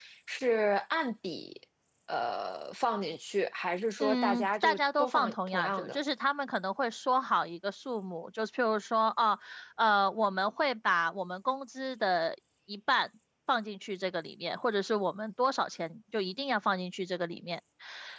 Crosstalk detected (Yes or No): Yes